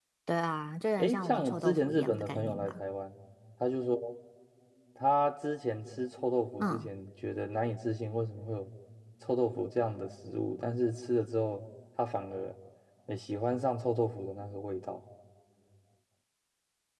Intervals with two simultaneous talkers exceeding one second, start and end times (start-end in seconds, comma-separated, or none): 1.0-2.8